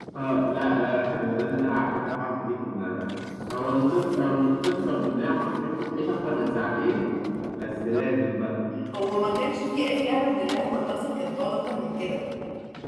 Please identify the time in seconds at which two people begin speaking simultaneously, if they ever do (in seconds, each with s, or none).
none